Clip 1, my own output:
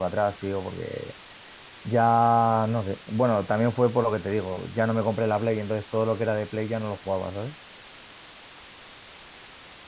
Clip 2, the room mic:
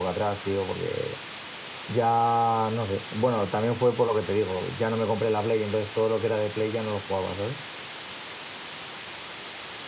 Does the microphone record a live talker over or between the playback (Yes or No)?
No